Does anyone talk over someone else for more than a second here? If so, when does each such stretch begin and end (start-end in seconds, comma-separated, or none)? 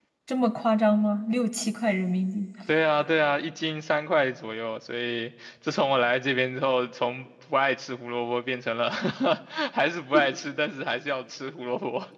none